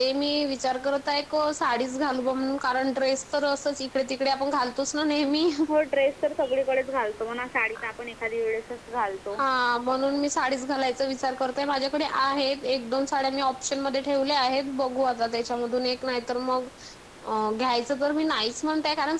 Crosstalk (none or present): none